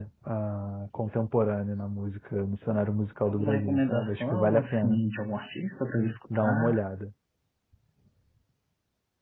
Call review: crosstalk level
present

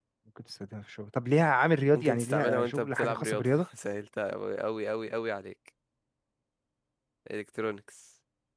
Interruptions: present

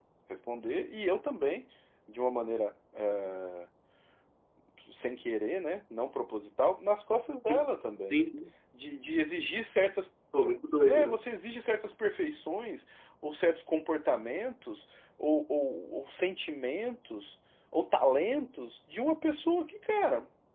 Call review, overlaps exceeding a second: none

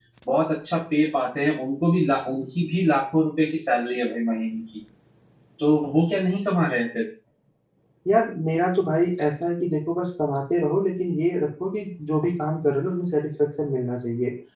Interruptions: none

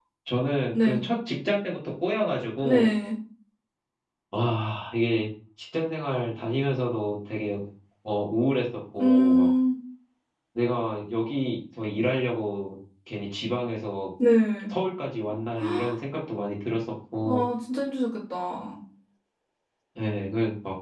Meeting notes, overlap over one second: none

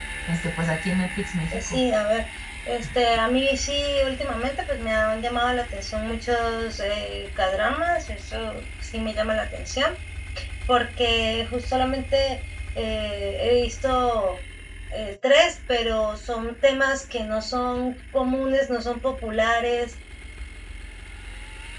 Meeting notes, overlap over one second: none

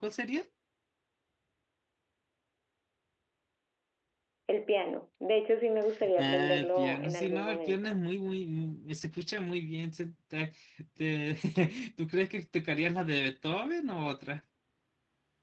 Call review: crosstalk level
present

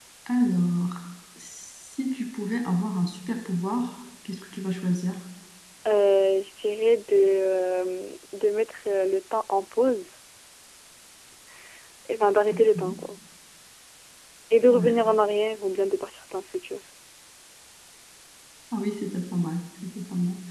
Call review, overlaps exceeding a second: none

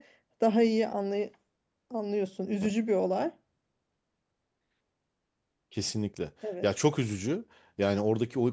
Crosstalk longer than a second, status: none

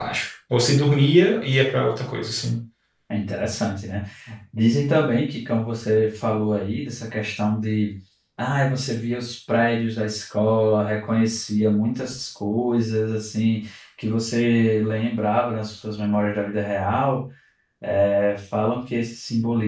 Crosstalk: none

